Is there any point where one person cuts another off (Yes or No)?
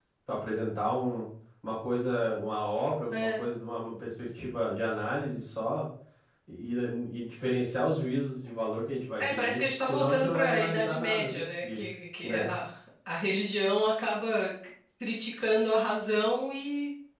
Yes